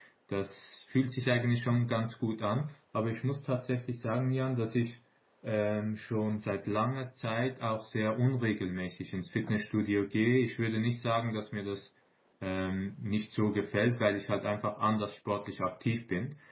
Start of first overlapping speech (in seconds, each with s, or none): none